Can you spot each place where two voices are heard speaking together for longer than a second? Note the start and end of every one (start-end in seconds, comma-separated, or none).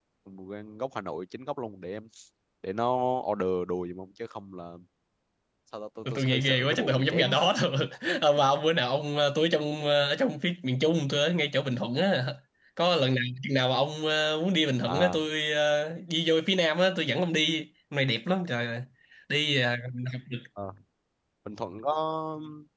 6.0-7.3